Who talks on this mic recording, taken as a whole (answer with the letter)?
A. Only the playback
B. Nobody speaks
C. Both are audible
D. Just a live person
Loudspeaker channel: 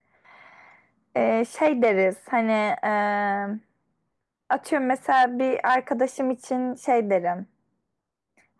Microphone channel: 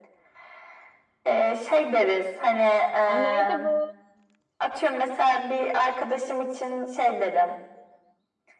C